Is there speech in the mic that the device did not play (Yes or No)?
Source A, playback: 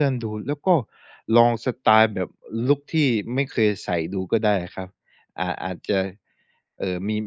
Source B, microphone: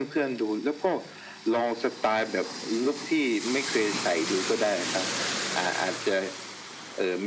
No